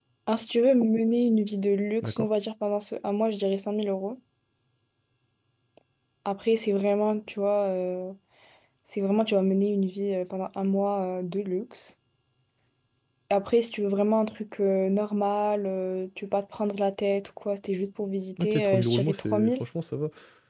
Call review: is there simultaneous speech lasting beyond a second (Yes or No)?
Yes